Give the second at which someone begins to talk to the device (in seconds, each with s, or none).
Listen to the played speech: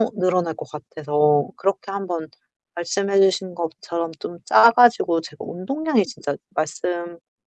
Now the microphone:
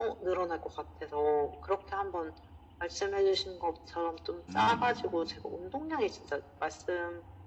4.5 s